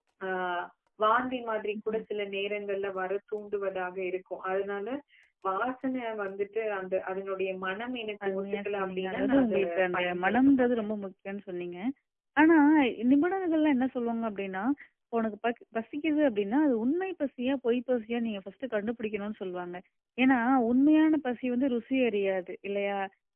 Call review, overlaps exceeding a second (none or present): present